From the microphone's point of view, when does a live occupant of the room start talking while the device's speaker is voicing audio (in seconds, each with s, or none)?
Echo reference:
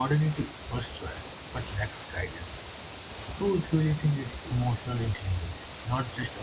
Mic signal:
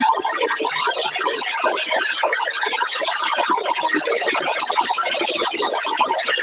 none